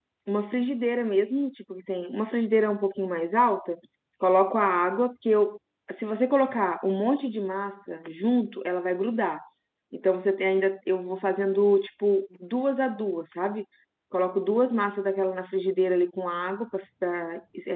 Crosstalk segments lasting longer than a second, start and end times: none

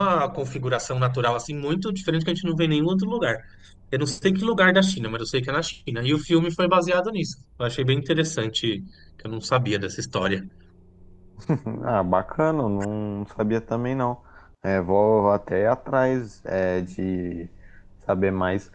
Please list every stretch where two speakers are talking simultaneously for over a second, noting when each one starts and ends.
none

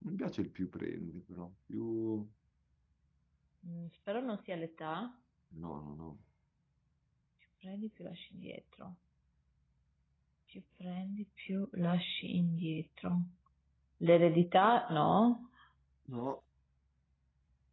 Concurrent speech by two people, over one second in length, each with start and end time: none

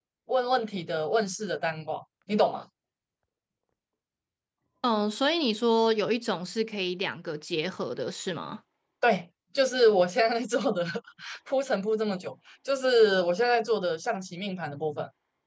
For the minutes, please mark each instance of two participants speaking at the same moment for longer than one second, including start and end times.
none

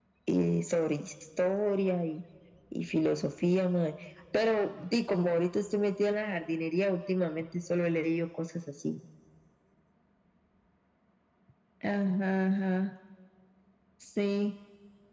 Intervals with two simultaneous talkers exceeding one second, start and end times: none

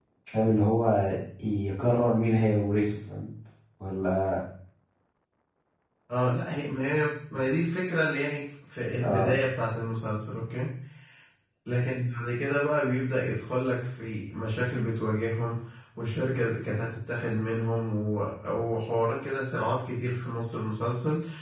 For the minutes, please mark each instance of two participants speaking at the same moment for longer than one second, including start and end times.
none

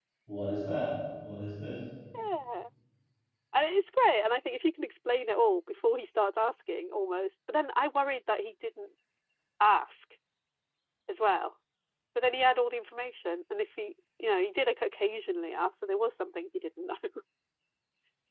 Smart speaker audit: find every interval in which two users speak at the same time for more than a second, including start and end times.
none

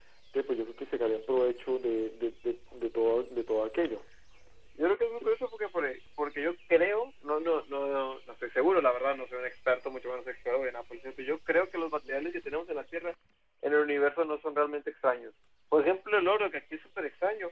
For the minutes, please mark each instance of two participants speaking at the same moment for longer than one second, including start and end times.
none

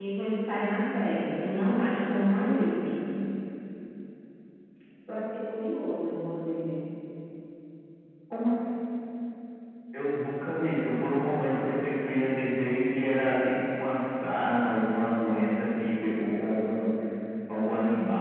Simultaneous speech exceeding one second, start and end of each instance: none

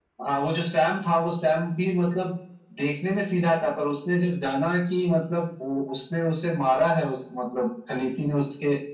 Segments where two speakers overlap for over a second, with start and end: none

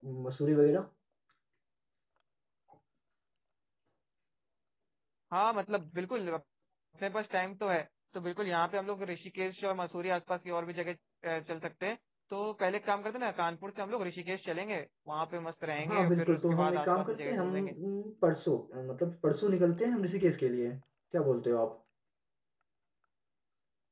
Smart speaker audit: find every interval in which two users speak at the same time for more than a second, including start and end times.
15.8-17.7

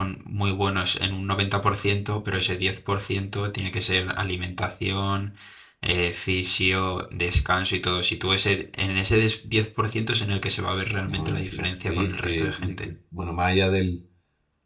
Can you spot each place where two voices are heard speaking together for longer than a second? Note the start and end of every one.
11.0-12.9

